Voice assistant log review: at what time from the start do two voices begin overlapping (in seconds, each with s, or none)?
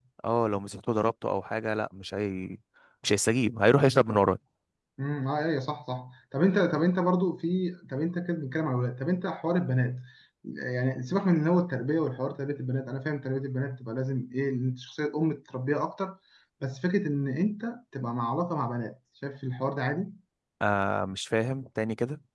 none